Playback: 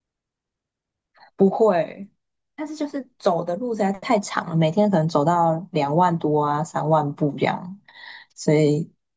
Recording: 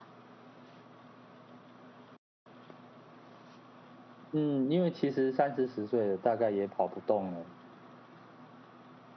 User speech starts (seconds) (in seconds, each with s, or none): 4.3 s